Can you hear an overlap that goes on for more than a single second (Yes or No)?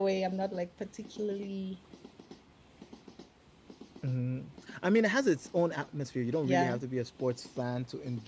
No